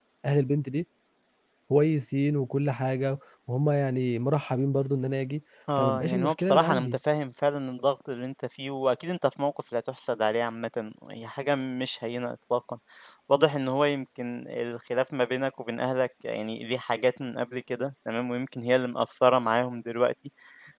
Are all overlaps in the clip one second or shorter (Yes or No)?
No